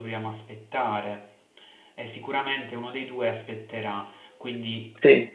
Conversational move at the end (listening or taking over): listening